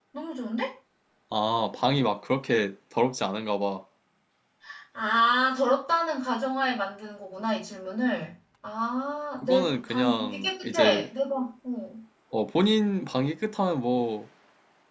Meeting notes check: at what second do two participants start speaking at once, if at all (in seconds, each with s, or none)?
9.4 s